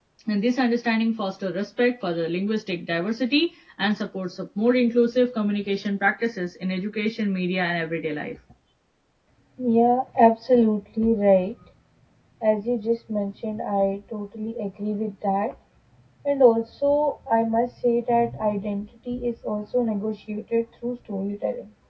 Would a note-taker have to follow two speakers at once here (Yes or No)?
No